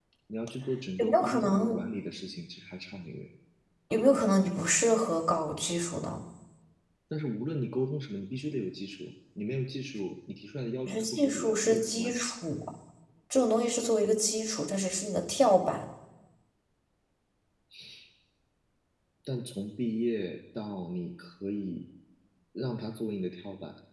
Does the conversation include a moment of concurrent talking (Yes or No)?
Yes